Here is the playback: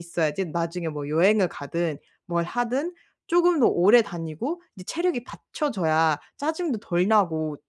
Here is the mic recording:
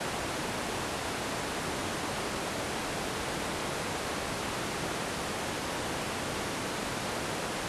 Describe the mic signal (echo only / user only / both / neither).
neither